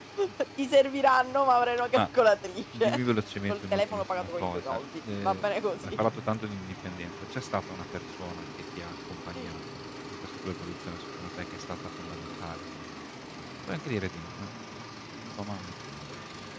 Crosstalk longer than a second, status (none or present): present